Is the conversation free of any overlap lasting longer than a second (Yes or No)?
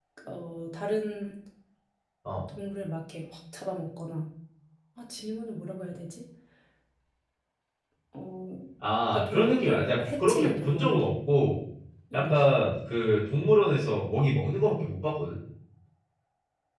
No